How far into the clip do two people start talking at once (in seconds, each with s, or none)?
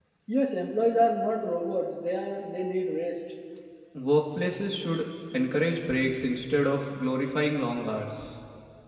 none